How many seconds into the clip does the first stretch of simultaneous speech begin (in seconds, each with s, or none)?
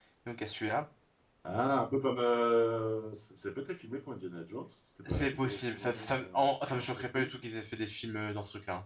5.0 s